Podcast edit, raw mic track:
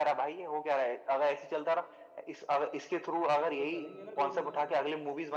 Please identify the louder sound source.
echo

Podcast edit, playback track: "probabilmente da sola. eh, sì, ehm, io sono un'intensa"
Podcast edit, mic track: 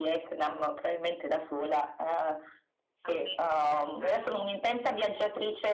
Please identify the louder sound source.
echo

